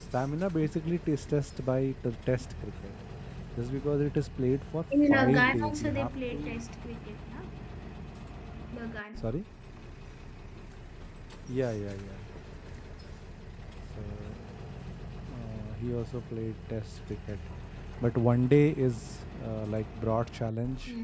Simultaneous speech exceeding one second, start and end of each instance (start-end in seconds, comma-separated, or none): 5.1-6.6